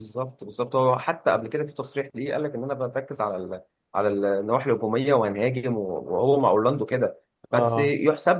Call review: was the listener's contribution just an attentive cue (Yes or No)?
Yes